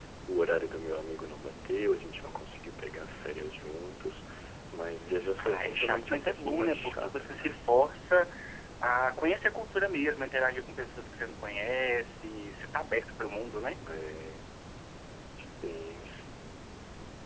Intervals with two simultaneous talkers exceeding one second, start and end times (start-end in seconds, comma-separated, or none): 5.4-7.5